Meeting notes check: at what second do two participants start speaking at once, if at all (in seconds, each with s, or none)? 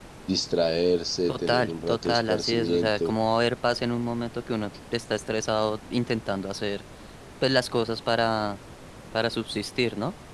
1.3 s